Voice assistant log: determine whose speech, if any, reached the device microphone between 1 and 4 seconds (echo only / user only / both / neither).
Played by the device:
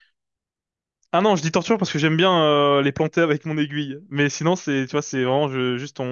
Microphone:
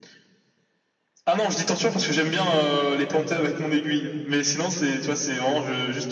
echo only